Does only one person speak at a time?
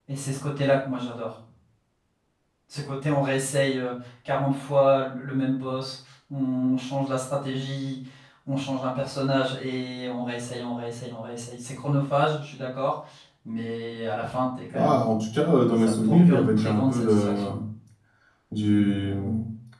No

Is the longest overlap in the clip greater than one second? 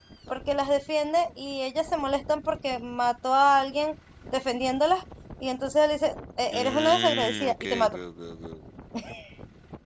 Yes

